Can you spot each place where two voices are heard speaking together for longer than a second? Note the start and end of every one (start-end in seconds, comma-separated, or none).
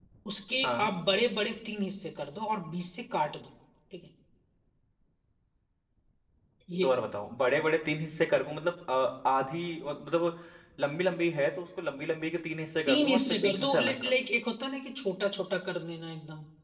12.9-14.1